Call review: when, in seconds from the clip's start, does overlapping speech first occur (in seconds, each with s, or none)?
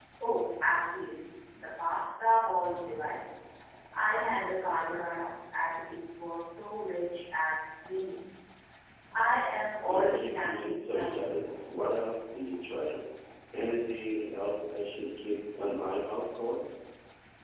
9.8 s